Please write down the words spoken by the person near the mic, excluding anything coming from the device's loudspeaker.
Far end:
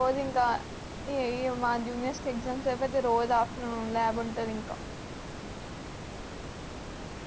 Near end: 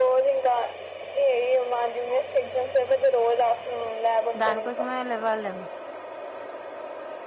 దానికోసమయినా లెవ్వల్నేమో

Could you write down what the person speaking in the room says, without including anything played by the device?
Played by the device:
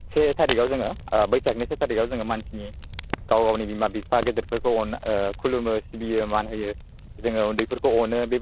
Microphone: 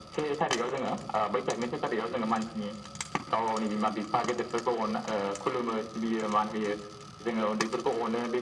none

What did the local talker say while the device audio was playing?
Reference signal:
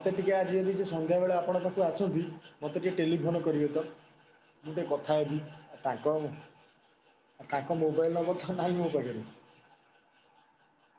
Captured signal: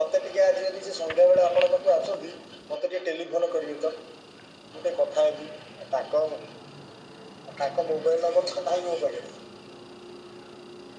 none

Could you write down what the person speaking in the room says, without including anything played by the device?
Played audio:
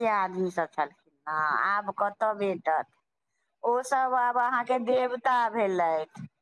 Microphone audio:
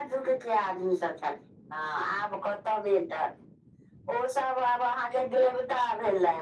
none

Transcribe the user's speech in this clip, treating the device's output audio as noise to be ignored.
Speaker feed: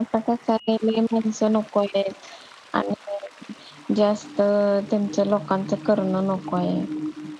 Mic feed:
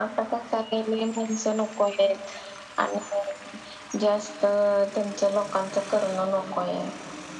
none

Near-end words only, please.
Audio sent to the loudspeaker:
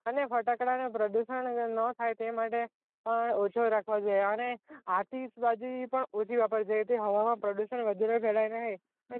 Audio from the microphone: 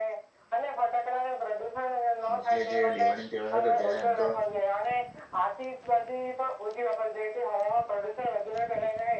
મોસ્ટલી જે દિવાળી તહેવાર હતો ત્યારે એમ તો

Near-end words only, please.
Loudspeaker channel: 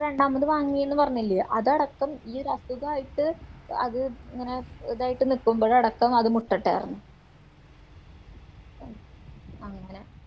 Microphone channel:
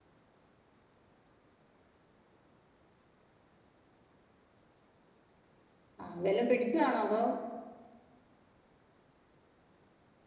ആ വെല്ലം പിടിച്ചതാണോ അതോ

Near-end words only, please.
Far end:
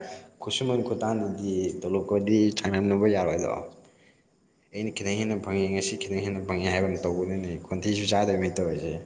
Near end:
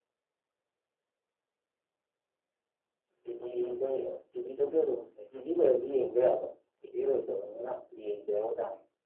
ꯇꯤꯚꯤꯗ ꯇꯤꯚꯤꯗꯗꯤ ꯑꯗꯨꯝ ꯇꯤꯚꯤꯗꯔꯗꯤ ꯌꯦꯡꯕ ꯌꯥꯕ꯫ ꯒꯤꯕꯤ ꯁꯨ ꯂꯩꯇꯕꯅꯤꯅ ꯌꯦꯡꯗꯦ ꯍꯥꯏ ꯇꯥꯔꯦ꯫

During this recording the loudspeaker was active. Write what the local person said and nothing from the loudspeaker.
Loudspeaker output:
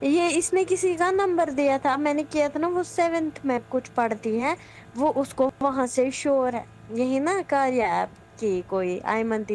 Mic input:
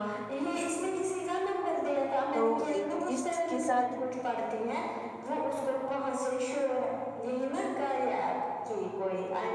تو اس کے ساتھ

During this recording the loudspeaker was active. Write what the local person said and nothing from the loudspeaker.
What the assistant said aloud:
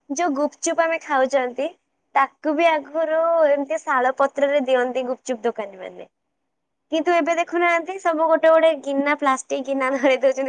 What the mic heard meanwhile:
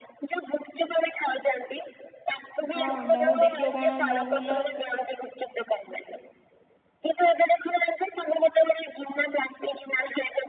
ହଁ ମହୁ ଦେଖିବ କଣ ମହୁଲ

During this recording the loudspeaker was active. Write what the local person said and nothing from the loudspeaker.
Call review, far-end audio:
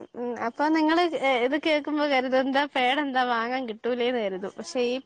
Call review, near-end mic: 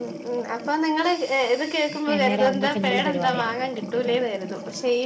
വൈകുന്നേരം ആവുമ്പോ സിമ്പിൾ പരിപാടിയാ

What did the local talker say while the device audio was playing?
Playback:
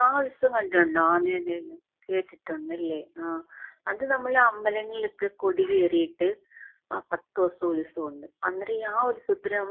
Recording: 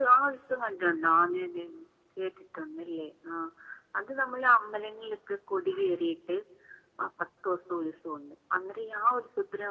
none

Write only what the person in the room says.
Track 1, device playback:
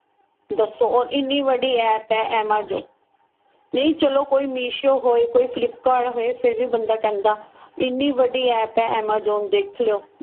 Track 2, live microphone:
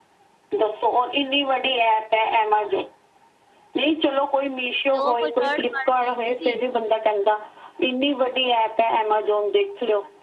ਤੇ ਉਹ ਕੋਈ ਥਰਡ ਪਾਰਟੀ ਹੈਗੀ ਸੀ,

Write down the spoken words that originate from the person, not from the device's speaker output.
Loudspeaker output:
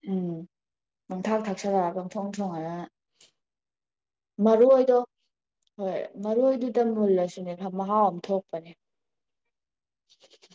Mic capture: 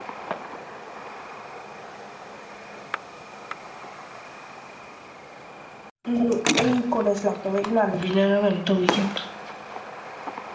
ꯎꯝ ꯑꯩ ꯀꯣꯂꯦꯖ ꯂꯥꯛꯇꯕꯩ ꯏꯃꯥꯟꯂꯕꯤꯅꯦꯔ ꯀꯩꯅꯣꯝ ꯇꯧꯕꯤꯈꯤꯝꯅꯤ

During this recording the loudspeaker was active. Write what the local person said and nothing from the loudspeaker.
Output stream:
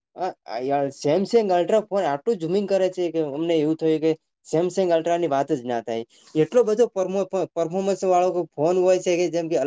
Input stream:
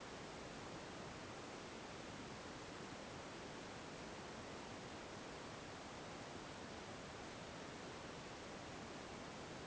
none

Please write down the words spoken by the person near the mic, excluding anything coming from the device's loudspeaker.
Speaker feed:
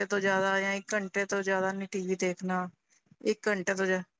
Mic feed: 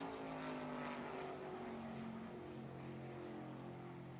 none

